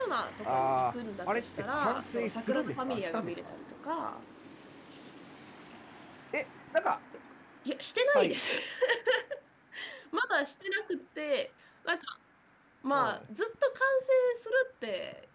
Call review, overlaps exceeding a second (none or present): present